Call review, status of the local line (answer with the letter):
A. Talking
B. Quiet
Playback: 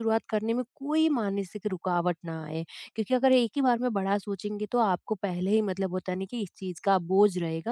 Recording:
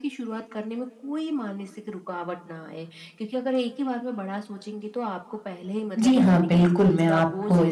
A